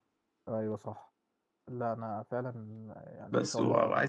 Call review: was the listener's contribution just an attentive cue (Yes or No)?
No